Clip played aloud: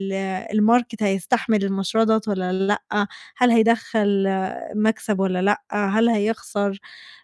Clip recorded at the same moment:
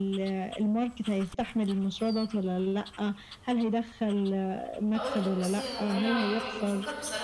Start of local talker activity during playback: 4.9 s

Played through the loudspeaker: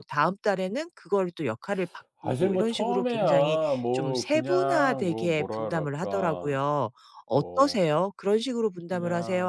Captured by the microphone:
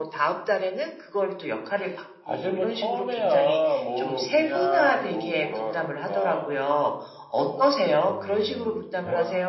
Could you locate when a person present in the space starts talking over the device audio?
8.0 s

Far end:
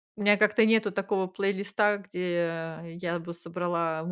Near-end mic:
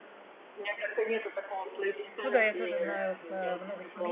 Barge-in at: 2.2 s

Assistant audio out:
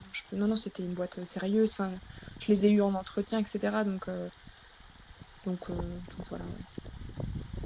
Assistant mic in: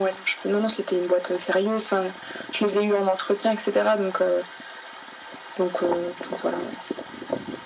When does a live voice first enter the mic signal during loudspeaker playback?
none

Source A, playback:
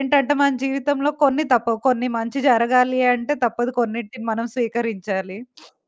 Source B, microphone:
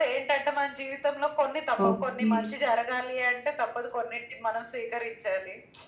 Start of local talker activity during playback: 1.9 s

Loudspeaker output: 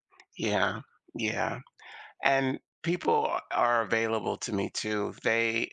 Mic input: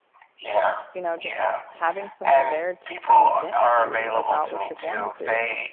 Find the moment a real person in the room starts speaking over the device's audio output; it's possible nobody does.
0.9 s

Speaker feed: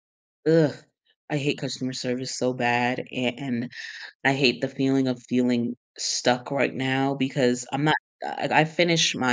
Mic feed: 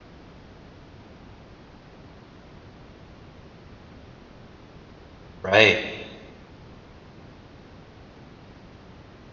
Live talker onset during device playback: 5.4 s

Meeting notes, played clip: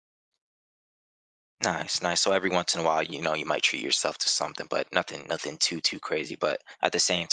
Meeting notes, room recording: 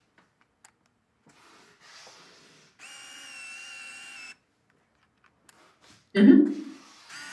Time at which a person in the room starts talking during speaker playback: 6.1 s

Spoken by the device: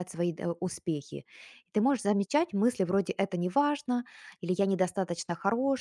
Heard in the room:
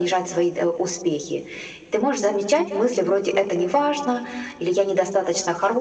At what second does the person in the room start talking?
none

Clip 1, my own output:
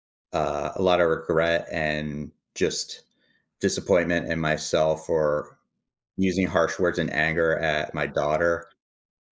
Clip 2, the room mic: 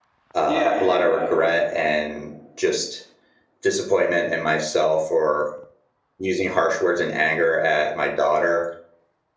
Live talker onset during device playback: 0.4 s

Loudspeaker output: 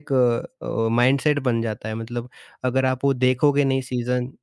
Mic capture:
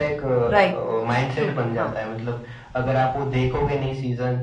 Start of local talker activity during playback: 0.5 s

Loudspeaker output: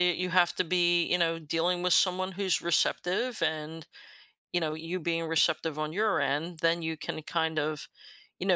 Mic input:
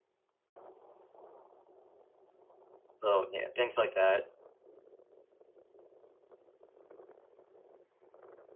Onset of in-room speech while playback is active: 3.0 s

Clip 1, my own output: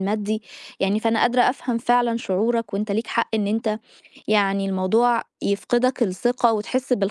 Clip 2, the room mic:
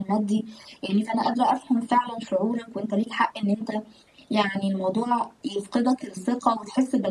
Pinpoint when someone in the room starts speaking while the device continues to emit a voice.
none

